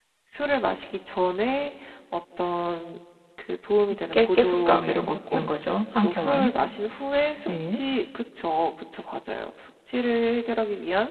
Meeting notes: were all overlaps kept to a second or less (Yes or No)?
No